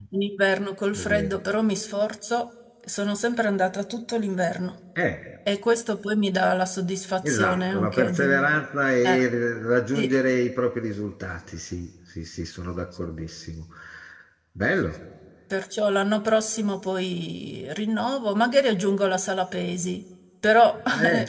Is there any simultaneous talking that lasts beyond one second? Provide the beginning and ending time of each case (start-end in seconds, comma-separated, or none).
7.2-8.5